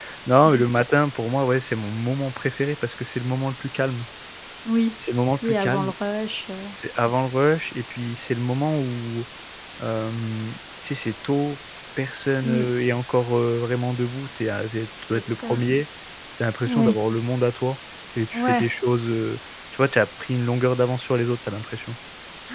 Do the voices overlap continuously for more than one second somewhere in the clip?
No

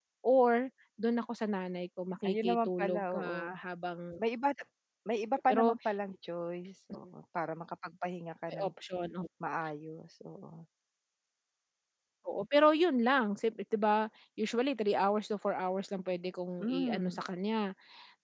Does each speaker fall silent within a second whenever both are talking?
No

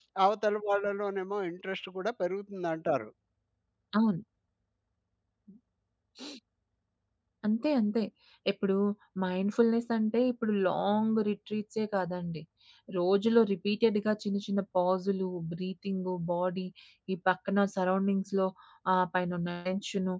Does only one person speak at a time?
Yes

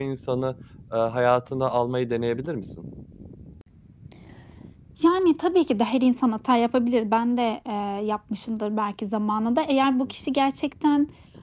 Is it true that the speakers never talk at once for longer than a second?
Yes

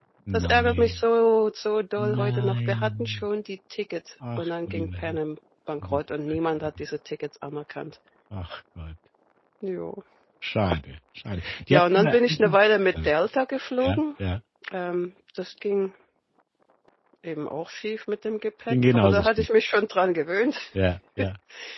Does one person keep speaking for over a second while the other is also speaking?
Yes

